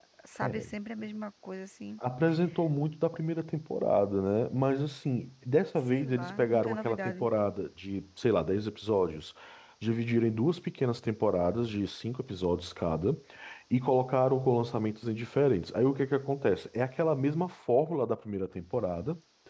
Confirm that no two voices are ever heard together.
No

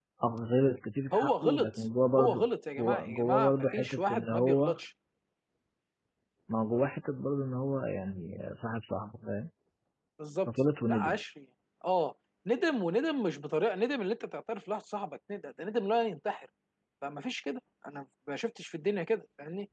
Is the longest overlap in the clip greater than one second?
Yes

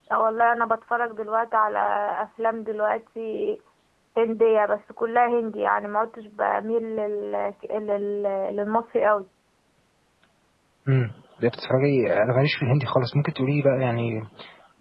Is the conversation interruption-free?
Yes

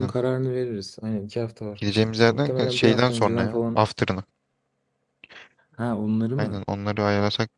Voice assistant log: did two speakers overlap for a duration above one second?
Yes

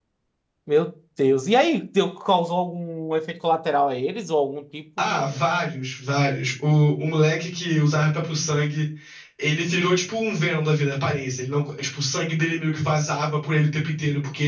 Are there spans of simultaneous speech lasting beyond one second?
No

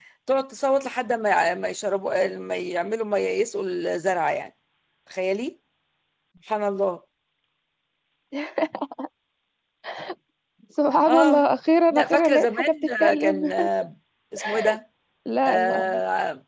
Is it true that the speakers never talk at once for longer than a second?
No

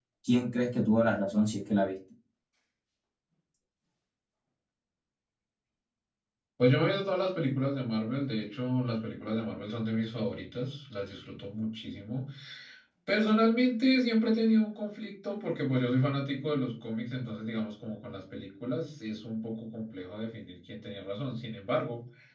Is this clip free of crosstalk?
Yes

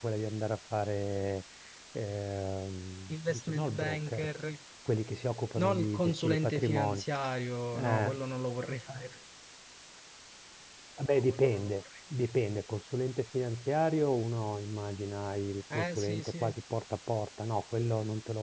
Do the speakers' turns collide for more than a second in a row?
Yes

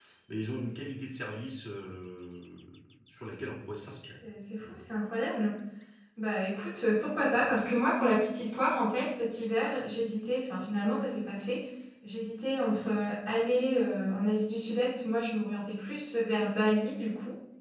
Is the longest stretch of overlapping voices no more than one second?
Yes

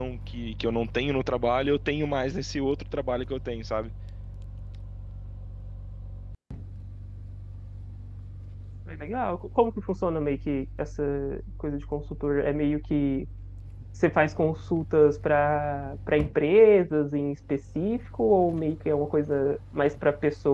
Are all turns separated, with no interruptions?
Yes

